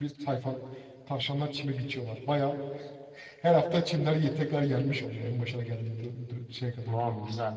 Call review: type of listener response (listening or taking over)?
taking over